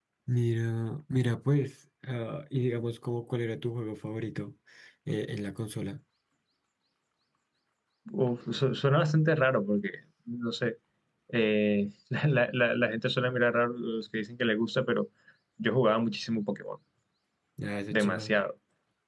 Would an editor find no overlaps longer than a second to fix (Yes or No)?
Yes